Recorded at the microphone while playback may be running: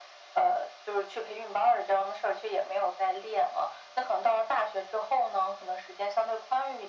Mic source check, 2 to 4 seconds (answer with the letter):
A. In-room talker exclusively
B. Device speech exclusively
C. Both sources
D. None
B